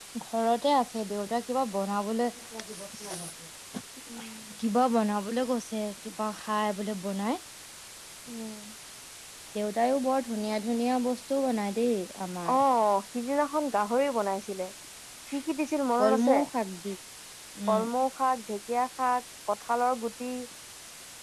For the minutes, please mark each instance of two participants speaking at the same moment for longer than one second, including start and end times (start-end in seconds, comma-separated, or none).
none